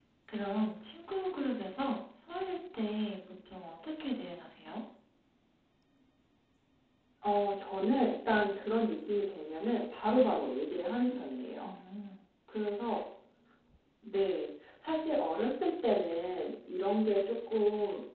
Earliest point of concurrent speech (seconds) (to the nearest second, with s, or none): none